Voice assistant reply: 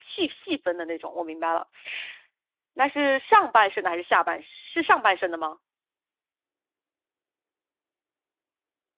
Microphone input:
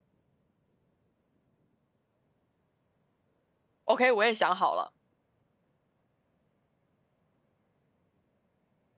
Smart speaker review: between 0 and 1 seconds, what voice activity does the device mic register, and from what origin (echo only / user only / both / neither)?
neither